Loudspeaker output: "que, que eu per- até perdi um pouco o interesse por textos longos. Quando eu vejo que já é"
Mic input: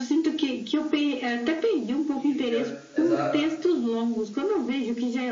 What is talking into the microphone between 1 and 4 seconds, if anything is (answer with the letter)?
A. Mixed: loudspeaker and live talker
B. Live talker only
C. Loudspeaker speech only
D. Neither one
A